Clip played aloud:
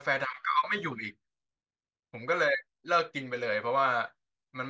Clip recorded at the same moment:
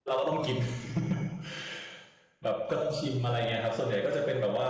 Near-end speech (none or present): present